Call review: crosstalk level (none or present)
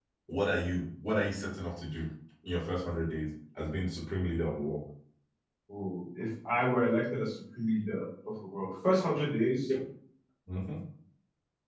none